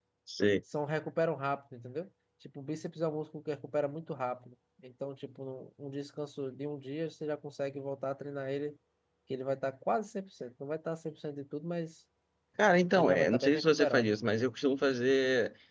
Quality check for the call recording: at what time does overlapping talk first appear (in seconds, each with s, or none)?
12.9 s